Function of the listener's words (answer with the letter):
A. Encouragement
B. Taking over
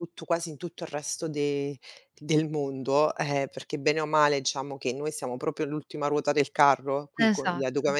A